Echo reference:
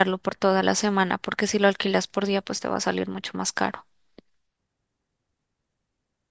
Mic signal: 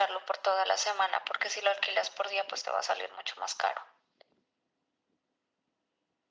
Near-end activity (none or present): none